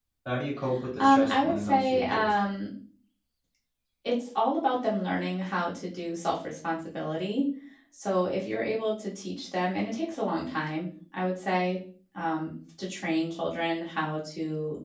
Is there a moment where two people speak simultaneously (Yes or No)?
Yes